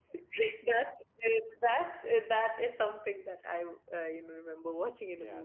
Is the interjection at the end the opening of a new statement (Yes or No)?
Yes